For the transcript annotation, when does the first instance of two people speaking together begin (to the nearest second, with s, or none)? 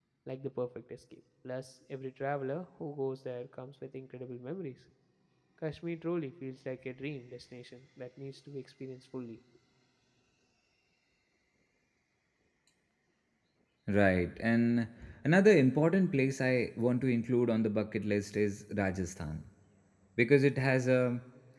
none